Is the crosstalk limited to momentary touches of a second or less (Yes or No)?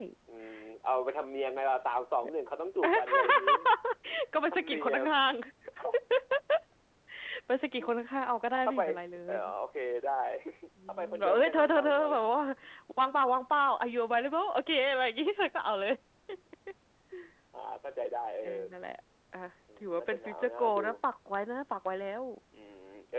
No